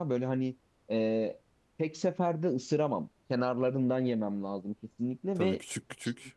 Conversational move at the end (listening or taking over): taking over